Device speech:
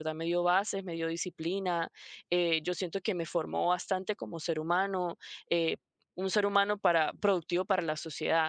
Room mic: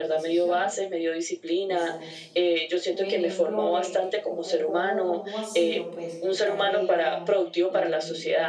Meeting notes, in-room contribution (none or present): present